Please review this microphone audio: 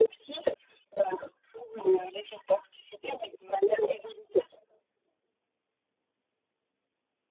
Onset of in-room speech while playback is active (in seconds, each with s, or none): none